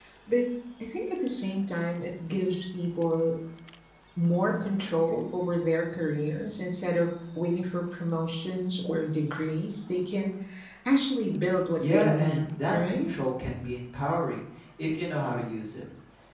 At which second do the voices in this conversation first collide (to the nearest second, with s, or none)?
12 s